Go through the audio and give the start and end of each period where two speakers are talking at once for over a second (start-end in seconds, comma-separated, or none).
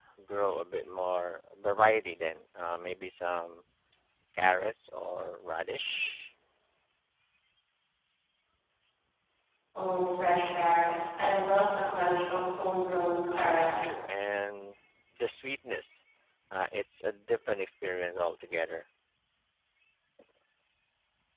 none